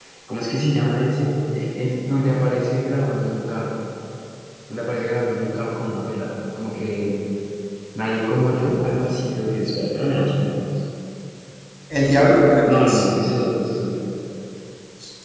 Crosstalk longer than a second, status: none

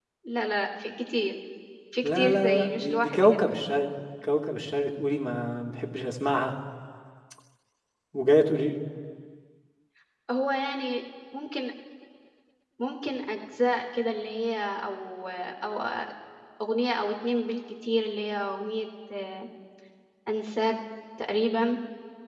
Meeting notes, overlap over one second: present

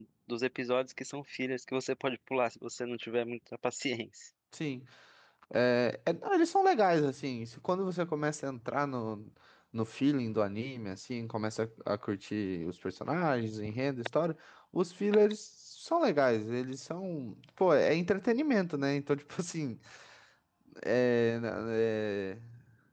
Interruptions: none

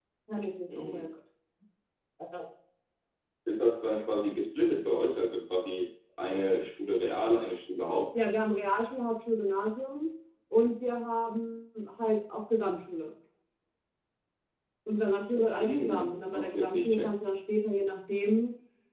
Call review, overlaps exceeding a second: present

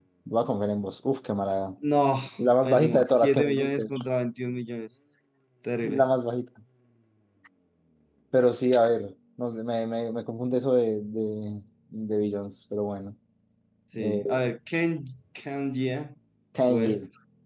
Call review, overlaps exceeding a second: present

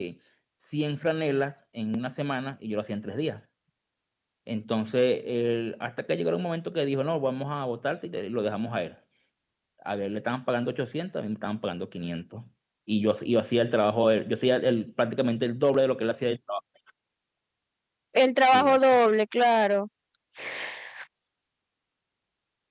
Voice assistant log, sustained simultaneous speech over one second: none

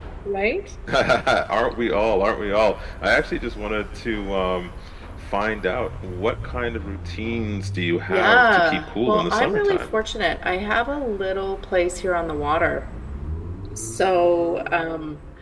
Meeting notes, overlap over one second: present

